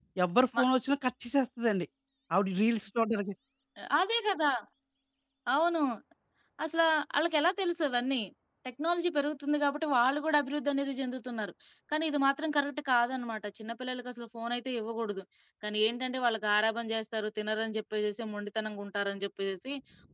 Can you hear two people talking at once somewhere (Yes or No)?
No